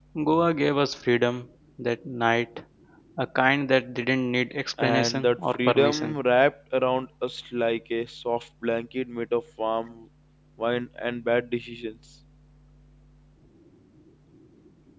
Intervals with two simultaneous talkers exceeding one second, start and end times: 4.8-6.2

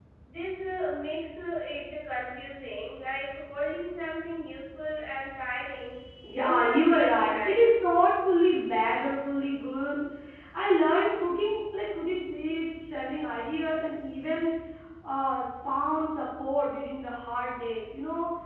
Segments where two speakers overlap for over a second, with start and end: 6.4-7.7

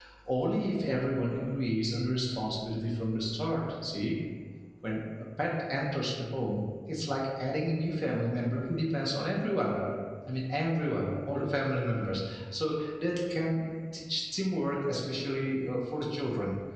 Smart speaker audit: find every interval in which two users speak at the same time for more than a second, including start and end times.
none

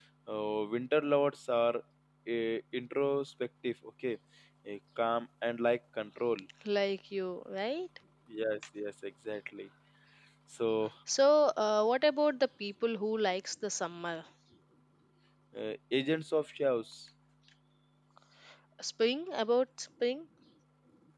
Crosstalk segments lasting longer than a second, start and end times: none

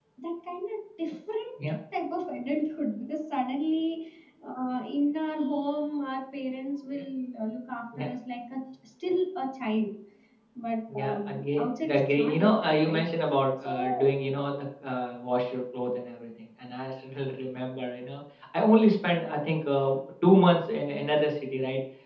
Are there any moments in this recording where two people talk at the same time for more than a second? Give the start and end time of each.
10.9-13.1

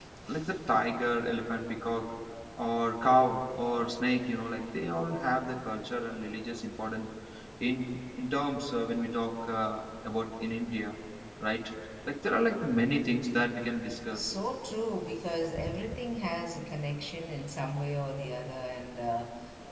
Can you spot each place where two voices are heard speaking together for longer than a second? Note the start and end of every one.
none

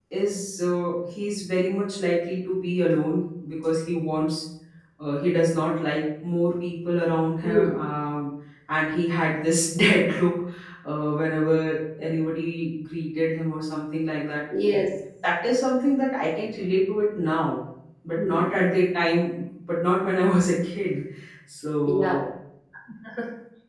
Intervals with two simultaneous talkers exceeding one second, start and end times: none

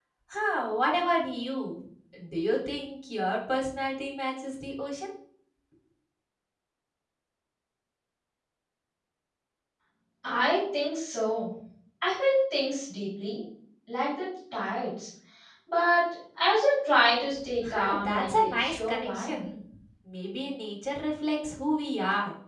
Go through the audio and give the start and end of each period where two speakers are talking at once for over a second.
17.7-19.4

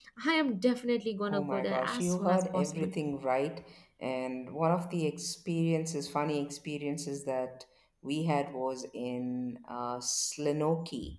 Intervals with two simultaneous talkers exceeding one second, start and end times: 1.3-2.9

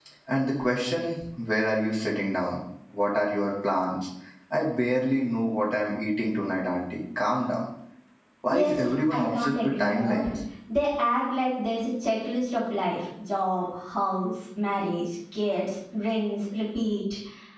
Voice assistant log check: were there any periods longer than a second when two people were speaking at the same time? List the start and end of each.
8.5-10.2

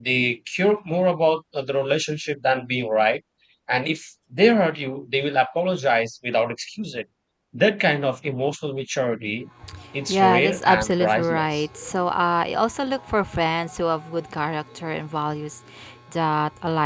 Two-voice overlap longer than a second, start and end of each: 10.1-11.6

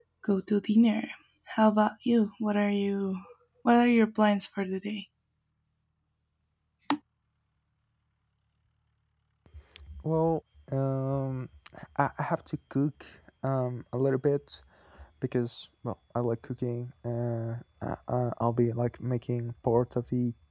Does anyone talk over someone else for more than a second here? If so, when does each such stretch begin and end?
none

